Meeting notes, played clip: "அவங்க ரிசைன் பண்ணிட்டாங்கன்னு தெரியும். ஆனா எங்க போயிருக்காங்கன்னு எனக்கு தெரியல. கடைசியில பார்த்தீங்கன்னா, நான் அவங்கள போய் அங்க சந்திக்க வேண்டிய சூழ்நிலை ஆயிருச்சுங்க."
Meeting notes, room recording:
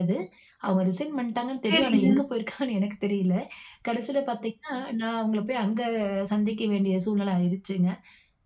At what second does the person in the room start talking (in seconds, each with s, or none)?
1.7 s